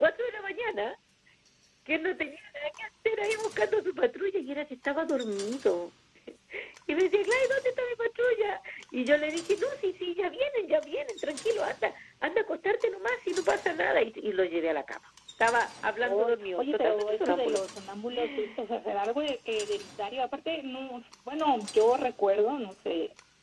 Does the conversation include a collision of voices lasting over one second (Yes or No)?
Yes